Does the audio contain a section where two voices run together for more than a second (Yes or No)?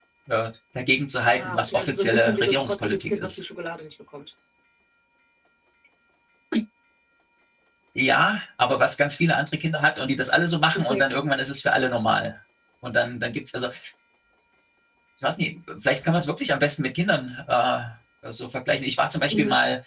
Yes